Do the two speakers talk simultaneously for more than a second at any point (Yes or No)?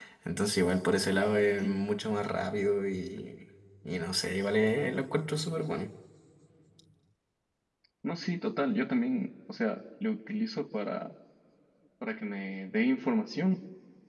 No